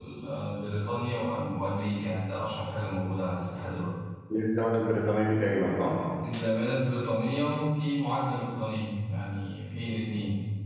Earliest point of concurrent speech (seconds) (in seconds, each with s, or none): none